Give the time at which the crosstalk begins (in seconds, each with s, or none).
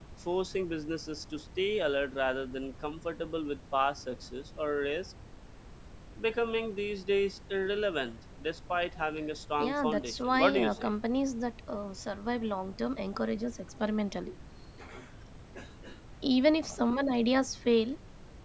9.6 s